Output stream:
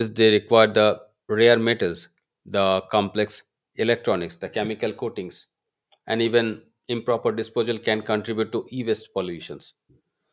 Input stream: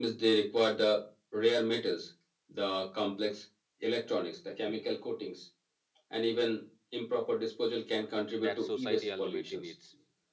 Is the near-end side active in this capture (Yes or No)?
Yes